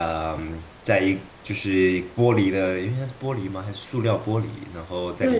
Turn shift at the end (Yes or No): Yes